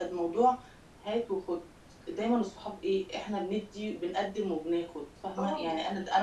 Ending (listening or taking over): listening